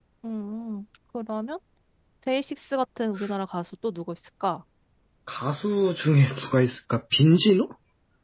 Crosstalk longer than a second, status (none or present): none